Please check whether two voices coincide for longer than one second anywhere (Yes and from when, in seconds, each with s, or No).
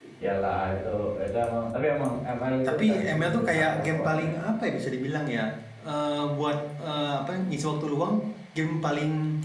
Yes, from 2.6 s